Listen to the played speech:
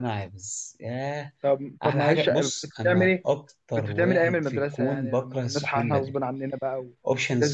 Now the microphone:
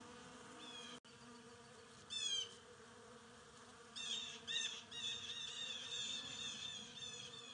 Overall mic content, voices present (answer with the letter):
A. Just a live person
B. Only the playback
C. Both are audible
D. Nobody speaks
D